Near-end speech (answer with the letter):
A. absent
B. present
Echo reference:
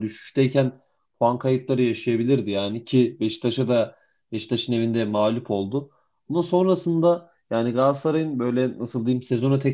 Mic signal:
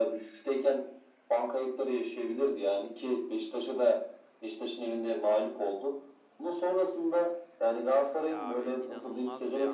B